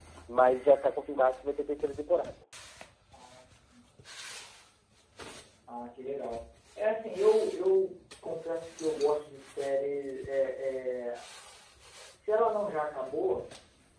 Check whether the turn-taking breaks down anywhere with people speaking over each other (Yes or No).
No